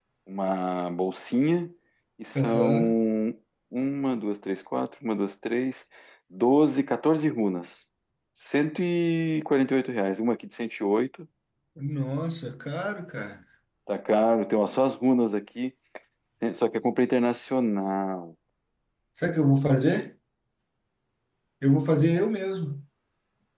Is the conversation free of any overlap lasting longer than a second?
Yes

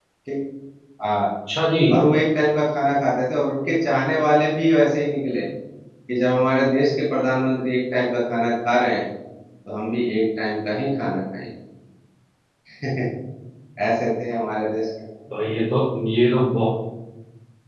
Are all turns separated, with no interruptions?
Yes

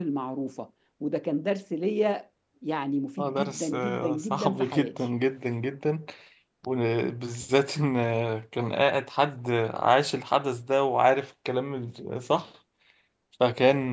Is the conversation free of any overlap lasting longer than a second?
No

